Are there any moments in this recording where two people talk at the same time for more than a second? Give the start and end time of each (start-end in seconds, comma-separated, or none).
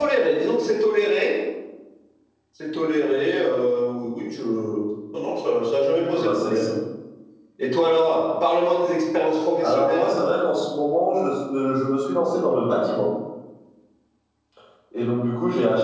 none